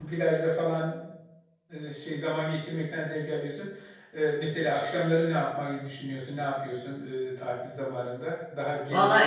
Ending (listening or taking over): taking over